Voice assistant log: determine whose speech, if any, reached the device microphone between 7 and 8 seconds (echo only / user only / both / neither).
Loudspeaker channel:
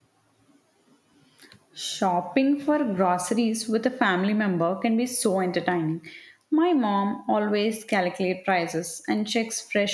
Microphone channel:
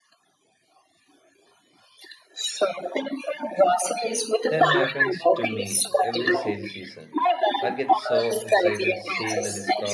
both